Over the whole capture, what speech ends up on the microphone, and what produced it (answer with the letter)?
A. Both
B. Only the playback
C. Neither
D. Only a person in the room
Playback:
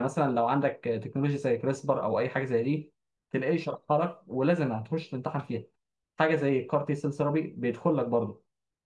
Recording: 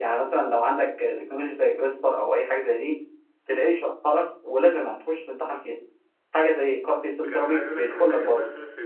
A